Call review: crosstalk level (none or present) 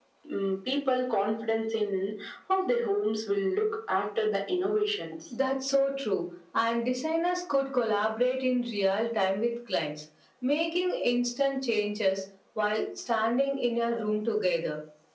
none